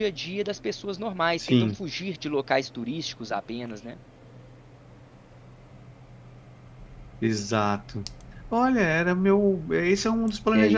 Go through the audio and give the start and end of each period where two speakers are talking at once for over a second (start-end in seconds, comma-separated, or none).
none